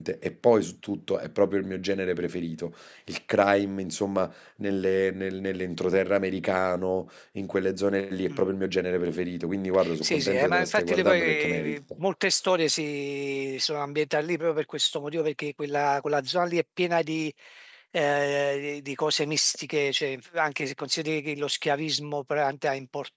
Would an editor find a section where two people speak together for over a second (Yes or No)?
Yes